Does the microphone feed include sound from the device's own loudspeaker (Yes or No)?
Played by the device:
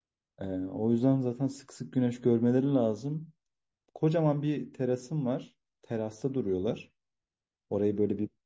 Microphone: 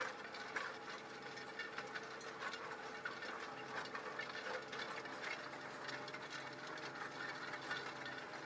No